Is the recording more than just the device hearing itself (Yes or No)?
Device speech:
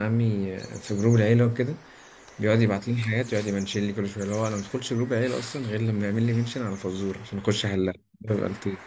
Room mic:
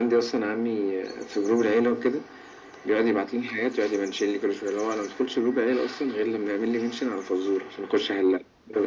No